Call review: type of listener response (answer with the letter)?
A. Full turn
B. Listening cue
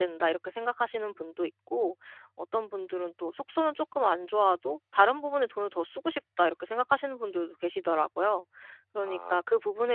B